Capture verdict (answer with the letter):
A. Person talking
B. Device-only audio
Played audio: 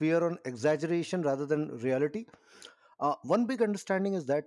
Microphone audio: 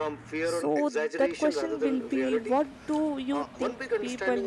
A